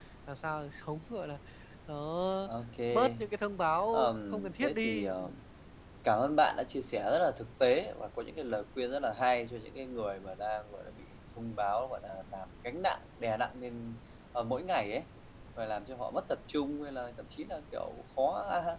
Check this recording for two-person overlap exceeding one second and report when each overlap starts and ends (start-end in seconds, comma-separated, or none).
3.9-5.3